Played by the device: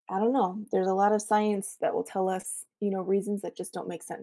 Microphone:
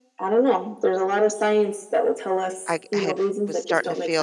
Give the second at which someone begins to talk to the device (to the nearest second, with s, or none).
3 s